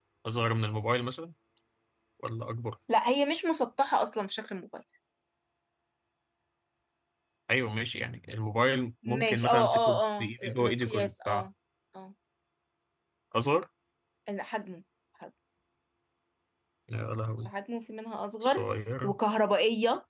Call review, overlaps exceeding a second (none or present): present